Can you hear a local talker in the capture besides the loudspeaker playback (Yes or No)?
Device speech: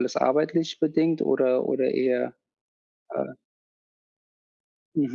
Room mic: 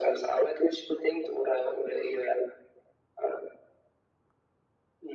No